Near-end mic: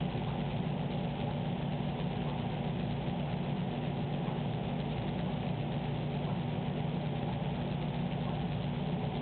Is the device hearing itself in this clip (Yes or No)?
No